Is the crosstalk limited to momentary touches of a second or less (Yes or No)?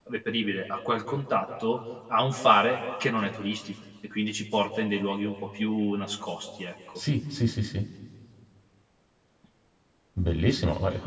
Yes